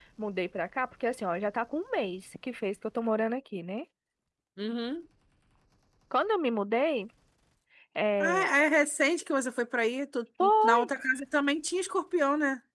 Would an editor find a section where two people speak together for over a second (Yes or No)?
No